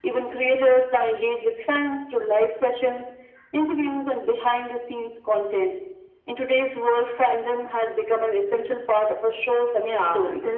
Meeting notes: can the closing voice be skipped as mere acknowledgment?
No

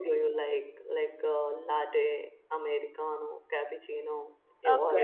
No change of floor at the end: No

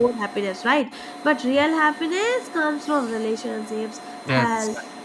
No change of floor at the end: Yes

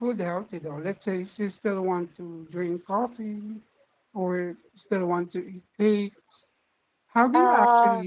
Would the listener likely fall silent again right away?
Yes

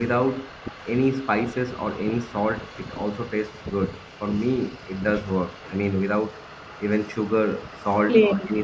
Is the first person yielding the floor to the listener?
No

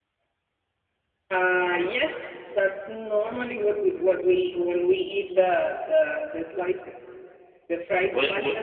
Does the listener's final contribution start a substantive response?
No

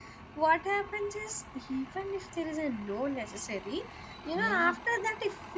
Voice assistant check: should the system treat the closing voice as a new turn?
No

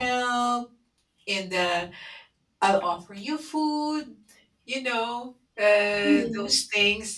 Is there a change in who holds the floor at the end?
No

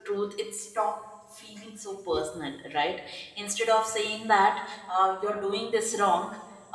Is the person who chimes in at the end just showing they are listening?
Yes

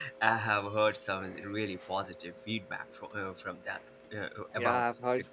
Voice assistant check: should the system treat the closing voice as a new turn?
Yes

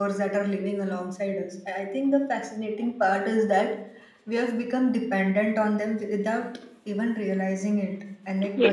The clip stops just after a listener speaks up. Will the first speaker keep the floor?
Yes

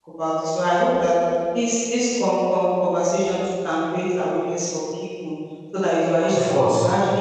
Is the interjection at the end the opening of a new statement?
No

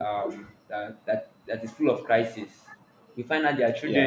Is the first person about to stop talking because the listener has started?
No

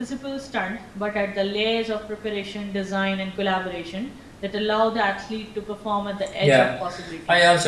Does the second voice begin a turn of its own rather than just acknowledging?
Yes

